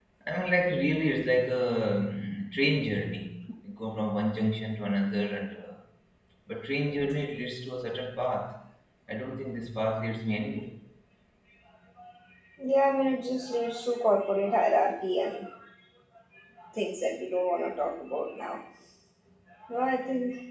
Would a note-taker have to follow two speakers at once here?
No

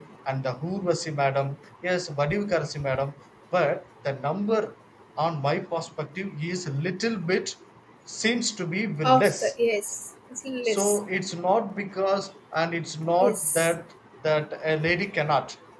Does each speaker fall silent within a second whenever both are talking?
Yes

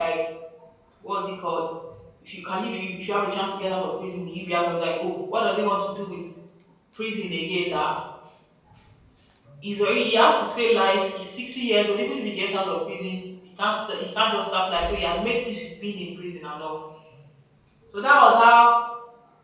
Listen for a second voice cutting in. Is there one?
No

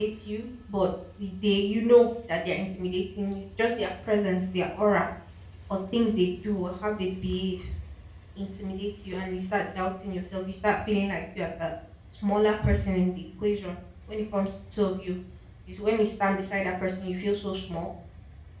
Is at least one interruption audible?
No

